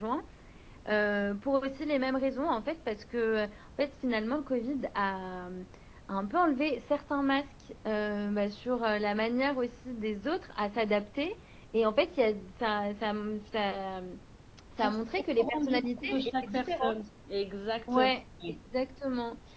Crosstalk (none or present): present